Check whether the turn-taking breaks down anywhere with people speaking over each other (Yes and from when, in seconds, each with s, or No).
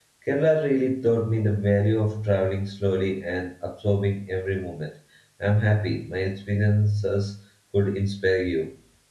No